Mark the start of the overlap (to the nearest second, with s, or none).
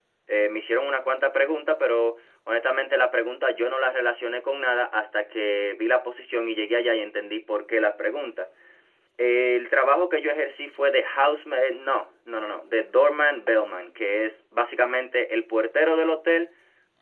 none